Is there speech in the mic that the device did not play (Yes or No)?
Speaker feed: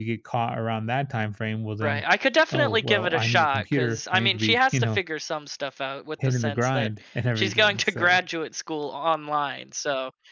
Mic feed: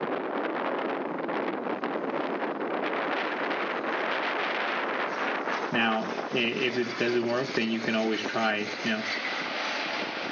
Yes